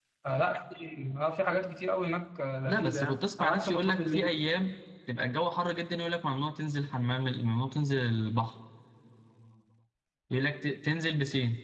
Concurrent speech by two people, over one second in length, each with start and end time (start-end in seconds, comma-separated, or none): 2.7-4.3